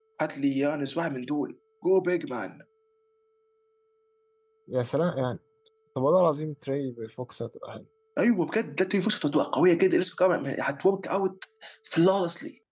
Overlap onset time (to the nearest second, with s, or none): none